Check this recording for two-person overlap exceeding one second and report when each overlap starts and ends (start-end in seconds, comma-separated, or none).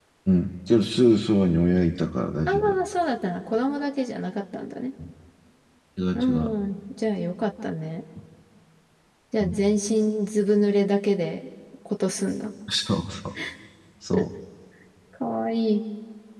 none